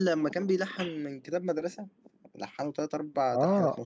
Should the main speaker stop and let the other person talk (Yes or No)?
Yes